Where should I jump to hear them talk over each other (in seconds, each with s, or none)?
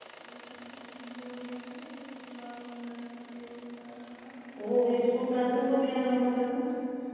none